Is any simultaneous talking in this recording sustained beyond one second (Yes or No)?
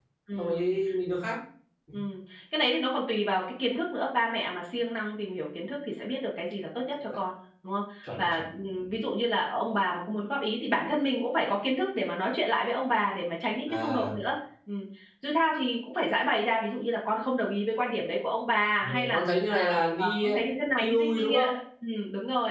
Yes